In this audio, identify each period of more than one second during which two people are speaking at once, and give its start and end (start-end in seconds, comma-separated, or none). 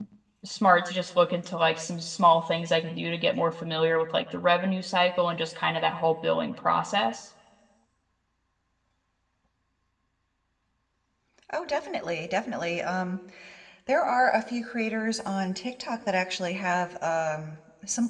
none